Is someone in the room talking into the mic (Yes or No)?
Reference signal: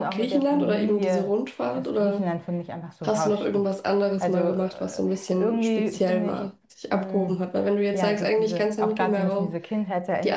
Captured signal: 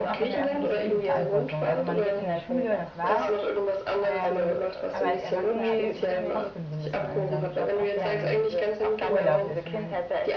Yes